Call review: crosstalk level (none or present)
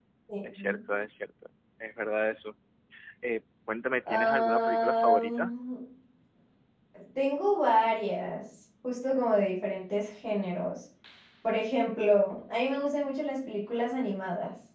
present